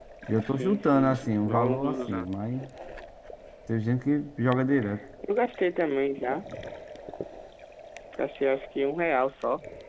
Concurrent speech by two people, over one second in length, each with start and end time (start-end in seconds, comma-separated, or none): 0.5-2.3